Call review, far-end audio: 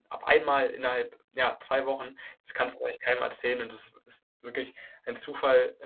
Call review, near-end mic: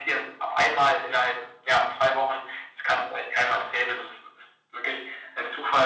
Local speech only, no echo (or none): none